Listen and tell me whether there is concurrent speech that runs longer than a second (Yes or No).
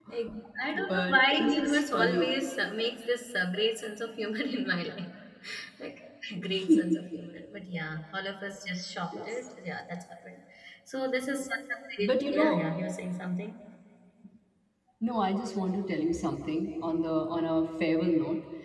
Yes